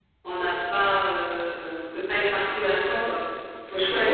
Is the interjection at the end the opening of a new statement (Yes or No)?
Yes